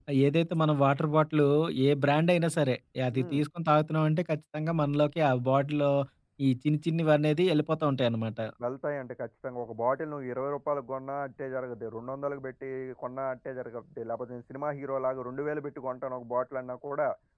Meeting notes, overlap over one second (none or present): none